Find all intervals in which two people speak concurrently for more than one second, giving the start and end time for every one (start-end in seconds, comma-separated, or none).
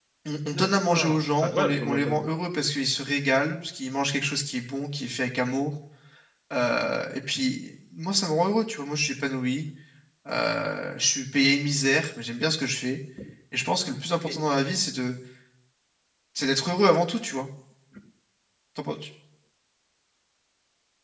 0.5-2.2